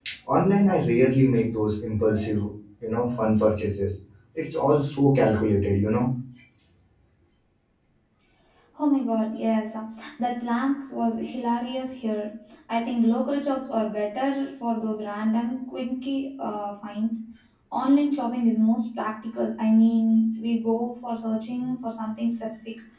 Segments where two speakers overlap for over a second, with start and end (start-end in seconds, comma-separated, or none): none